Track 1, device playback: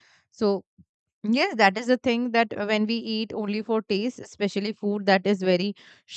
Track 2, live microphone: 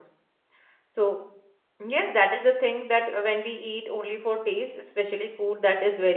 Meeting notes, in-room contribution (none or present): none